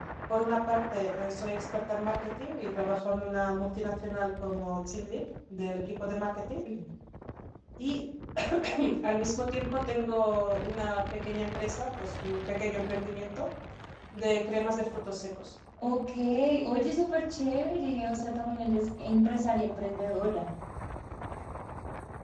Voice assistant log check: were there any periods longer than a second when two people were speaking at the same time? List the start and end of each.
none

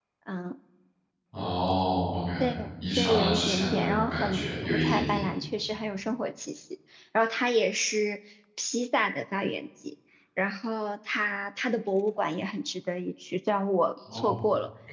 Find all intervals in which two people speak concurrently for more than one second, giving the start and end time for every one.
3.0-5.2

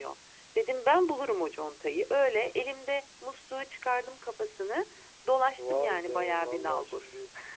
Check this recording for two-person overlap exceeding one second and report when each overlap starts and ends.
5.6-7.1

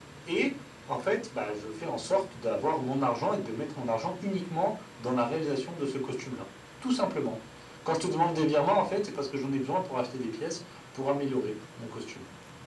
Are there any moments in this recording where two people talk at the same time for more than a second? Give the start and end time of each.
none

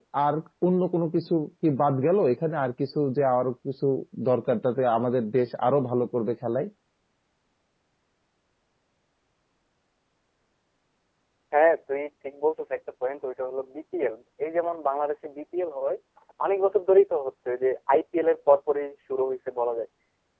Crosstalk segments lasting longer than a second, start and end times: none

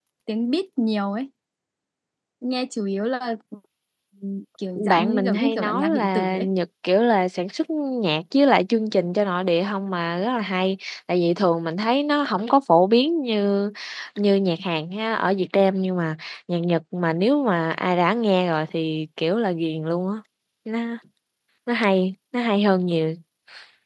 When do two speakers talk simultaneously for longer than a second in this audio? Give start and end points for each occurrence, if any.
4.8-6.5

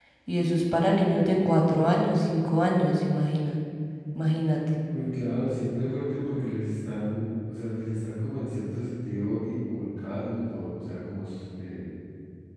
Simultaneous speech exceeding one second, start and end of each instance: none

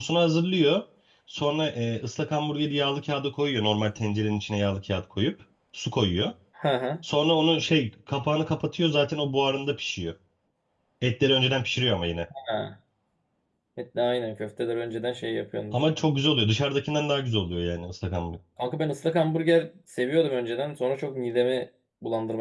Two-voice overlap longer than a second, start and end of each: none

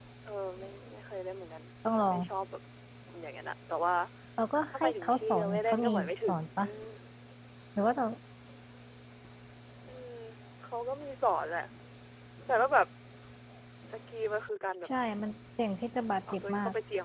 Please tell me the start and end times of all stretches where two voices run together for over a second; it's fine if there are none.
4.7-6.7

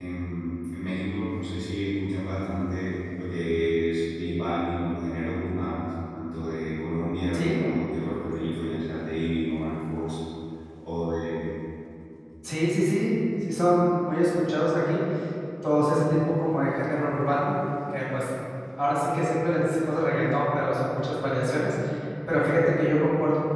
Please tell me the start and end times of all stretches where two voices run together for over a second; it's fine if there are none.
none

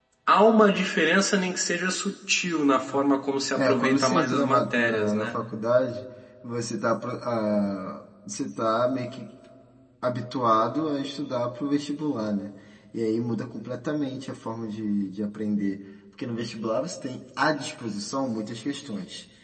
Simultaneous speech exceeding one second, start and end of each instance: 3.5-5.5

